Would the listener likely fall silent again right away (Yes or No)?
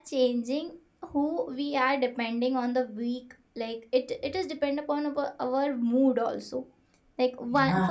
Yes